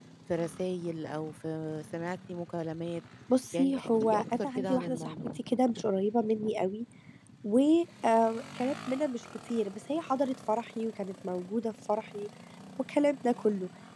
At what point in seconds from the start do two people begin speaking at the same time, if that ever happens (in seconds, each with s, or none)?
3.5 s